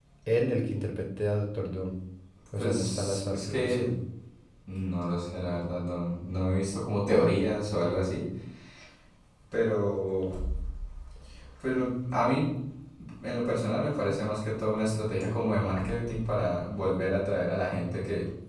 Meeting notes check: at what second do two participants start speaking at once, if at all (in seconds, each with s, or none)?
2.6 s